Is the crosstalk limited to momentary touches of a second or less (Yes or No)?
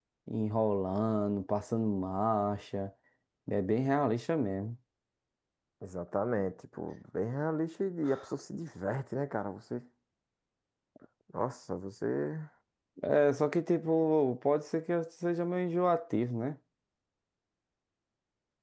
Yes